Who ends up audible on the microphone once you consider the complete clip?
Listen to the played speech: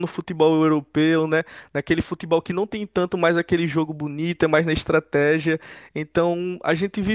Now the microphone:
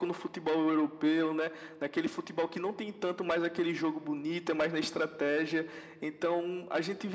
echo only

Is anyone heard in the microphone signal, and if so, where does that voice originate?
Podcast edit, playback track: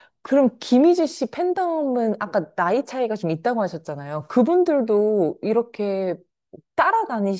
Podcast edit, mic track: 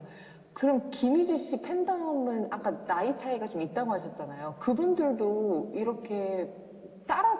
echo only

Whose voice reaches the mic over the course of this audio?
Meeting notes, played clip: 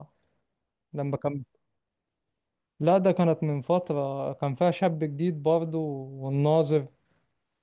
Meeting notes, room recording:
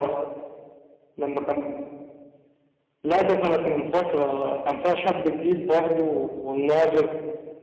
echo only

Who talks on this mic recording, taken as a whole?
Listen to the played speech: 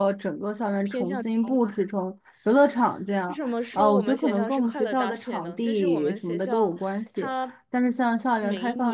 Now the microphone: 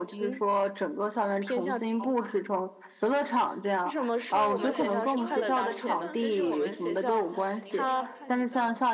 both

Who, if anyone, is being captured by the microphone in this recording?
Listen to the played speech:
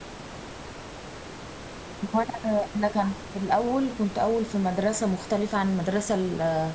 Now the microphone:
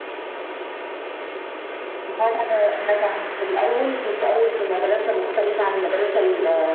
echo only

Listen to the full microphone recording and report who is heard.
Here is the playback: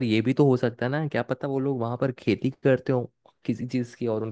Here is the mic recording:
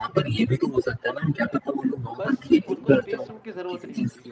both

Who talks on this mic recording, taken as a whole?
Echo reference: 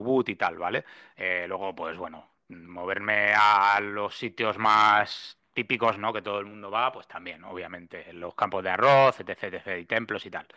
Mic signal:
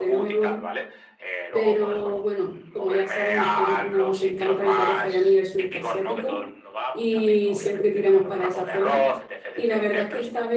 both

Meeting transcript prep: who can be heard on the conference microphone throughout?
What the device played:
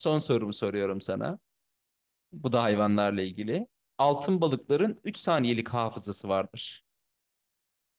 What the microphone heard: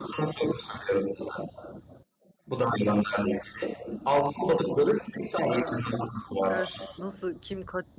both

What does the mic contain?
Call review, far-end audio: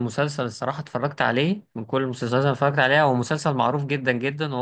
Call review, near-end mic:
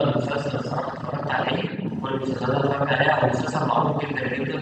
echo only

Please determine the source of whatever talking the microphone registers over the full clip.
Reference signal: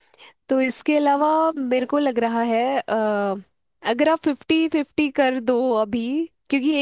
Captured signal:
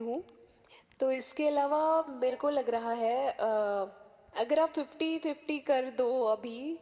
echo only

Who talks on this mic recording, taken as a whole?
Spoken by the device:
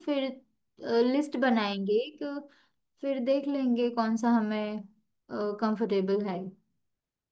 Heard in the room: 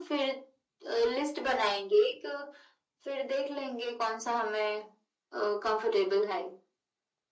echo only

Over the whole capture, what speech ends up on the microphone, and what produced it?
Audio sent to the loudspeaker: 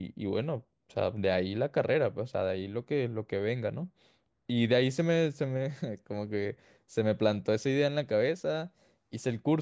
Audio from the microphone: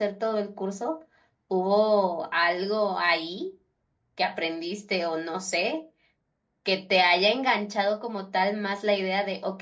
user only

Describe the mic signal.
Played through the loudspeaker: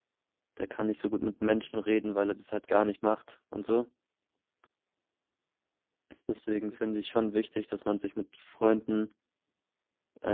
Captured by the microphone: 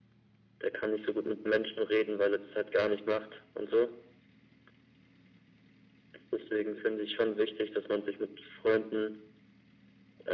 echo only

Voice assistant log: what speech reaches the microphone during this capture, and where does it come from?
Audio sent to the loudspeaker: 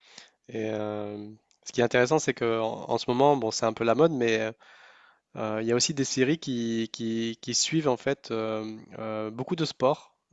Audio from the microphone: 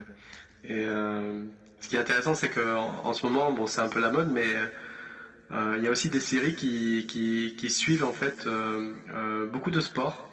echo only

